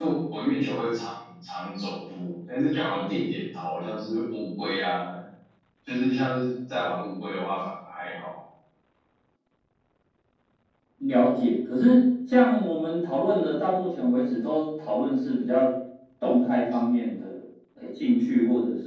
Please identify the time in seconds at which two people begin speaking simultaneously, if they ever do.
none

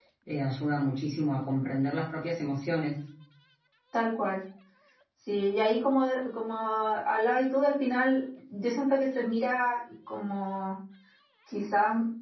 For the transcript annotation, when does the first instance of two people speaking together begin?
none

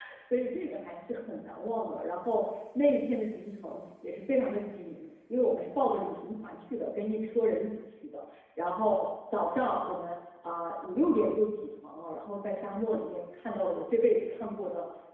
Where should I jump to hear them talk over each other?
none

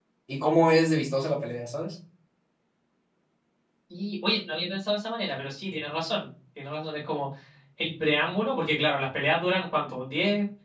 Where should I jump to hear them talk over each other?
none

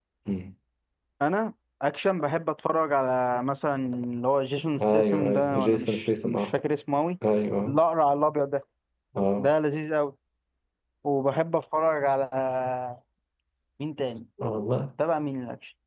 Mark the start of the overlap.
4.8 s

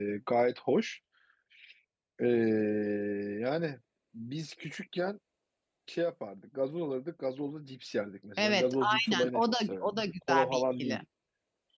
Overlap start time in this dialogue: 8.4 s

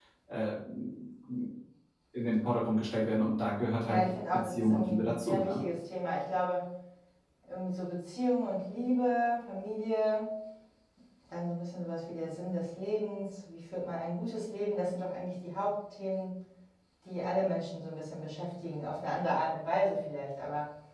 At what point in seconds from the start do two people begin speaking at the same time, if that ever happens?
3.8 s

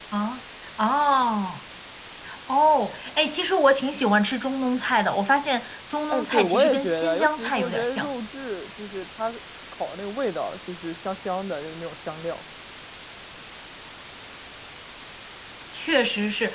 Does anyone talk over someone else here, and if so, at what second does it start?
6.1 s

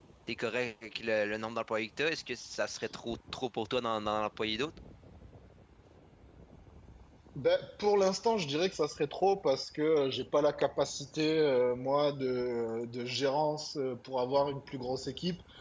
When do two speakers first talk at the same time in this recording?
none

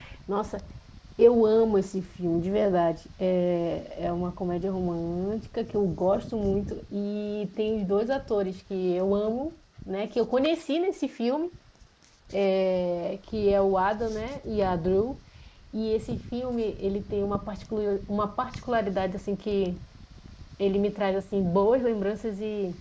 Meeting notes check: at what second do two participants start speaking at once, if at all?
none

